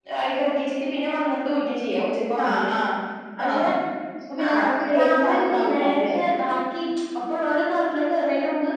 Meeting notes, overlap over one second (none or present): present